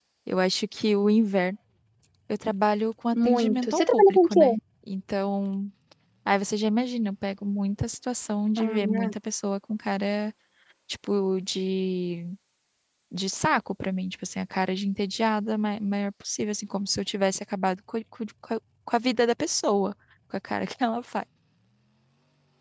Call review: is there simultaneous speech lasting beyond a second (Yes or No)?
Yes